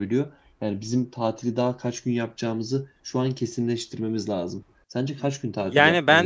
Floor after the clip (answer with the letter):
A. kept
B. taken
B